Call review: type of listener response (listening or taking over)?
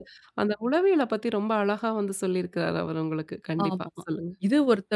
taking over